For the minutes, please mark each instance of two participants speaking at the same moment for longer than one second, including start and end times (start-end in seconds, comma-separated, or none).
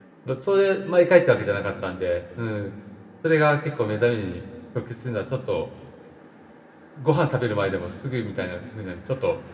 none